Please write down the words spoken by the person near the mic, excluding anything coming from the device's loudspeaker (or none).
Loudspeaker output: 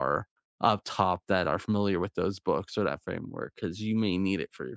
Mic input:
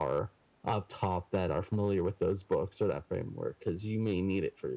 none